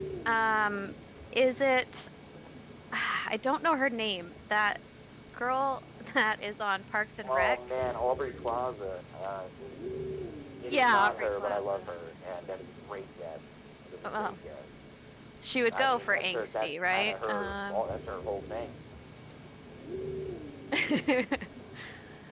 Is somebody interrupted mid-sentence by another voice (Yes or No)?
Yes